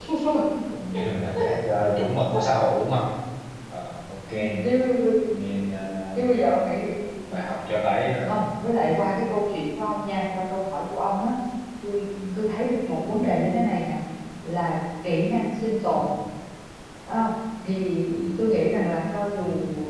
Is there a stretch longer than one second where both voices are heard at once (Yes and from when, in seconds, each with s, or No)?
No